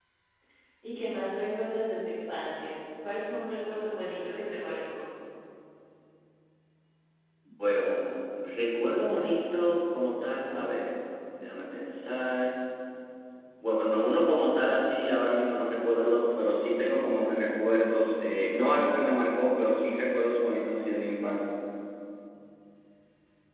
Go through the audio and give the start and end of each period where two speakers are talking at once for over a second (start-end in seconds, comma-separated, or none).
none